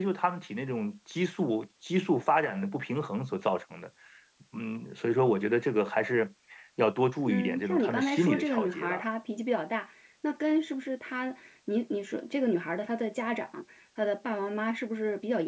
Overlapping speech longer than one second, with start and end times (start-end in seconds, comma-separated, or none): 7.3-9.0